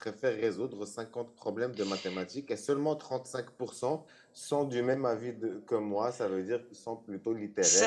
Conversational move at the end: taking over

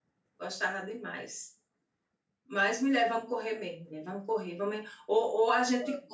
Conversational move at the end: listening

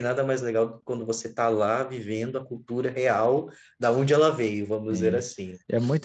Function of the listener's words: taking over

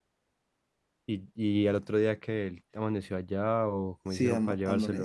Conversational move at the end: taking over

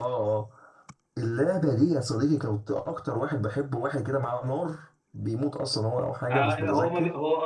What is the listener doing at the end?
taking over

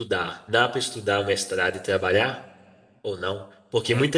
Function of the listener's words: listening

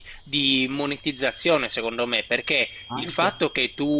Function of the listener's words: listening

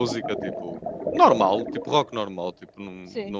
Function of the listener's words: listening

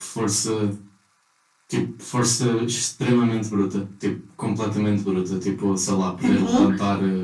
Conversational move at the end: listening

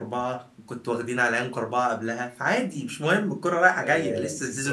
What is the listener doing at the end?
taking over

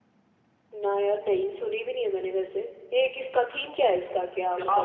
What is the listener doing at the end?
taking over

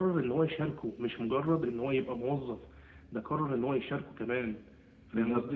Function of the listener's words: taking over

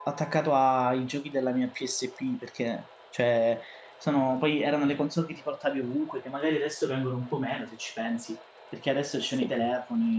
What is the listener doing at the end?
listening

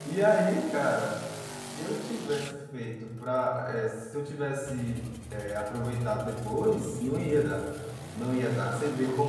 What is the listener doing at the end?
listening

